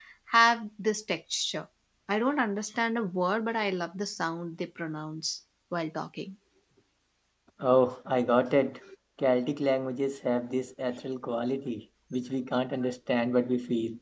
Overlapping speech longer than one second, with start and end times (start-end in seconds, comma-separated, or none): none